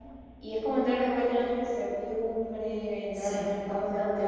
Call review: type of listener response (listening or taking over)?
taking over